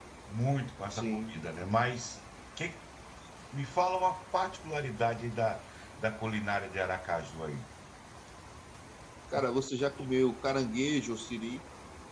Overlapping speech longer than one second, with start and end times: none

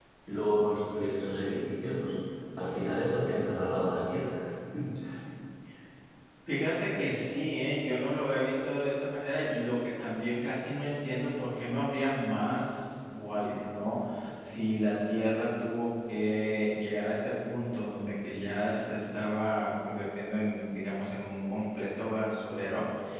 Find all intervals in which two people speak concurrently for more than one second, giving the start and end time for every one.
none

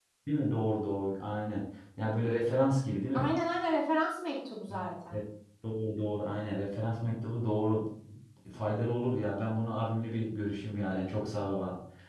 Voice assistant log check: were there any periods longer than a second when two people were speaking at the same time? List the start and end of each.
none

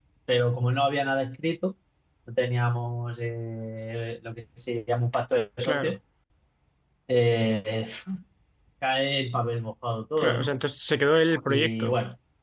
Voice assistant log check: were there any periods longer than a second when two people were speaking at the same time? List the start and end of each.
none

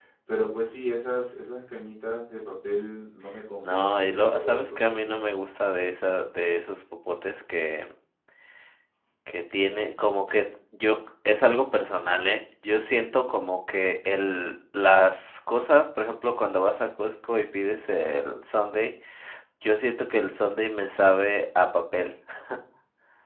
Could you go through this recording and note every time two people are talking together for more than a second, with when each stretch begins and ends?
3.6-5.2

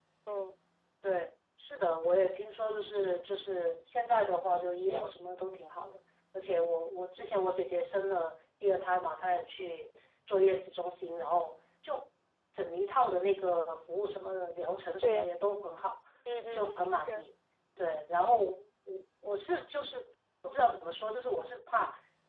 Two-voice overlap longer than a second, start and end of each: none

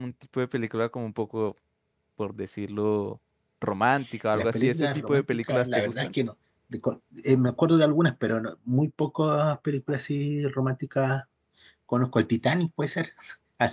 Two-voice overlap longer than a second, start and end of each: 4.3-6.1

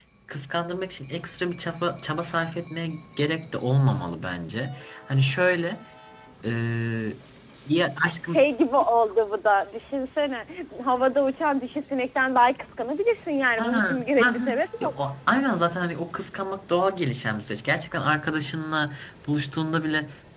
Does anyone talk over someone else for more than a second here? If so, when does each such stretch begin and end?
13.6-14.9

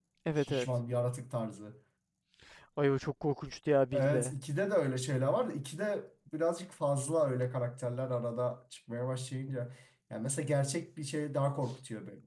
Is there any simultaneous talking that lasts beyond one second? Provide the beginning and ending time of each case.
none

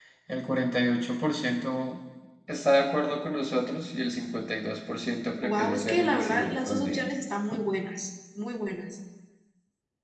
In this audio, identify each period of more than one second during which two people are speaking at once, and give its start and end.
5.4-7.1

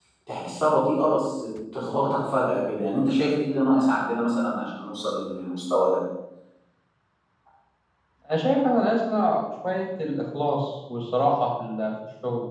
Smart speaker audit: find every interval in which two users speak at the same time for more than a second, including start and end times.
none

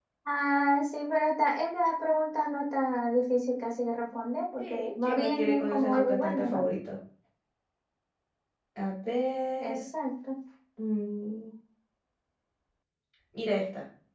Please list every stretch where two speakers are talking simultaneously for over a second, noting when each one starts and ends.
4.6-6.6

